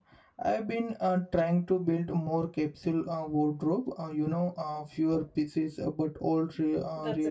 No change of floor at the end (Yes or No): No